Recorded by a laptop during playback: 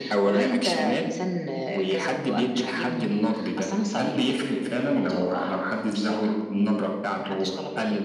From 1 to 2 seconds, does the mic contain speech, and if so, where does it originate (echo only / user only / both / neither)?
echo only